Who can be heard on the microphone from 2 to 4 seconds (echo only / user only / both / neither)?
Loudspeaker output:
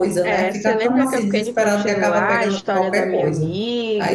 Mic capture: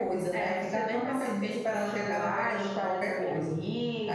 echo only